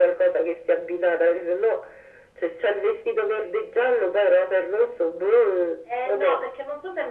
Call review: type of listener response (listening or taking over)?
taking over